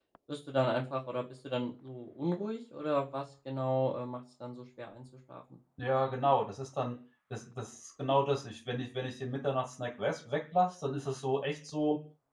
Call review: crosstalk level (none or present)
none